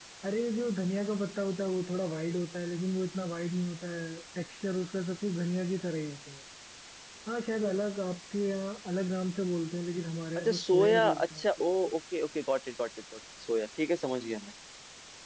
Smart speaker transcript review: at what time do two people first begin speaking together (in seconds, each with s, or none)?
10.4 s